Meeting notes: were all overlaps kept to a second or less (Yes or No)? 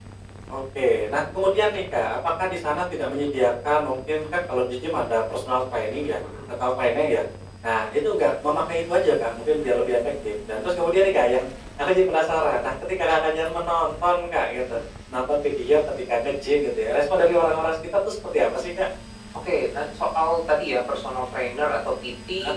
Yes